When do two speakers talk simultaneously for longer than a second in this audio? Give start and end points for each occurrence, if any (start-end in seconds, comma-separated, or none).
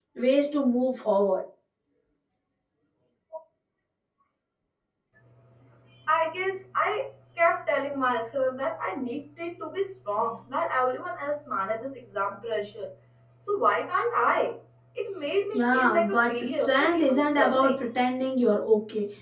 15.5-17.8